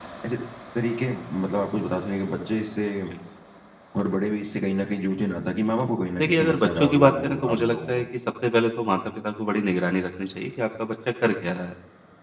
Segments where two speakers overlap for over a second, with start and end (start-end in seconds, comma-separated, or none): 6.2-8.0